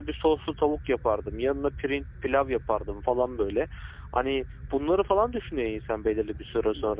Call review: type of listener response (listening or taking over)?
listening